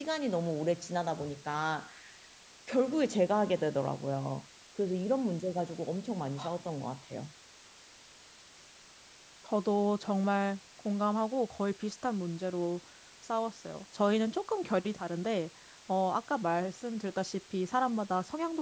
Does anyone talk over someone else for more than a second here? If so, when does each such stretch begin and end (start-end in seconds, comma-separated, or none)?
none